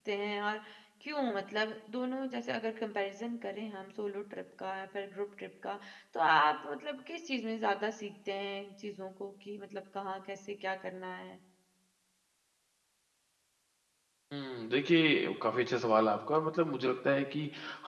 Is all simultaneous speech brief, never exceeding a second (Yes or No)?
Yes